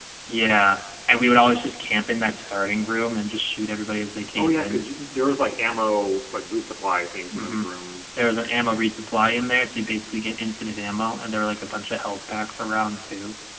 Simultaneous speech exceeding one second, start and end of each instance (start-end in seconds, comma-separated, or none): none